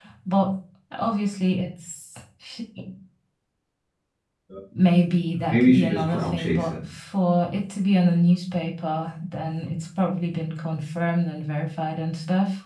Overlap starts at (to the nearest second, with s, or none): 6 s